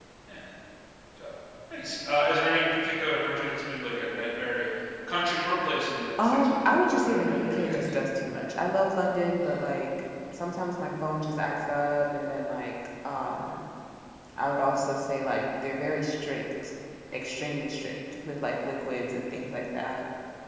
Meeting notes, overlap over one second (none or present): present